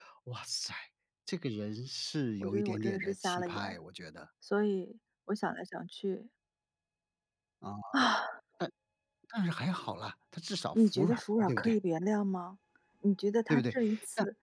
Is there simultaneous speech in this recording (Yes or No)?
Yes